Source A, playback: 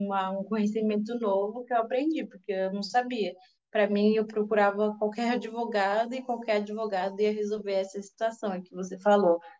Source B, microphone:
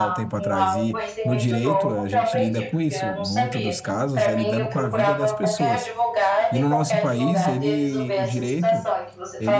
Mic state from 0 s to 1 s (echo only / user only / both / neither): both